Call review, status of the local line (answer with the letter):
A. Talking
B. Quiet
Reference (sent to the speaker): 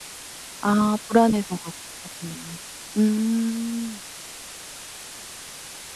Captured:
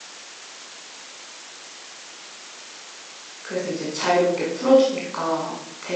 A